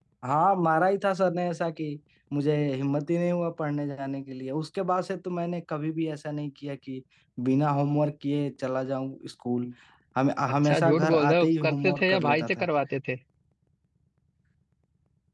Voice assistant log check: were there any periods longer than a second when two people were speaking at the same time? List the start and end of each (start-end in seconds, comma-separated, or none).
10.6-12.7